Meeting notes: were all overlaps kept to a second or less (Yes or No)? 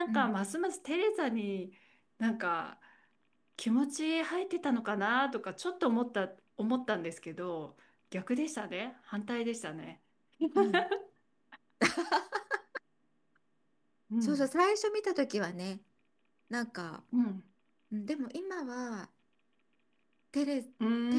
Yes